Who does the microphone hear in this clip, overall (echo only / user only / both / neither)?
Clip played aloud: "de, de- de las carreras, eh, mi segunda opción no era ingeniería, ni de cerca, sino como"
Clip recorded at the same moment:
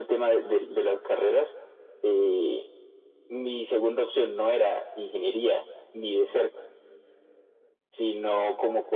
echo only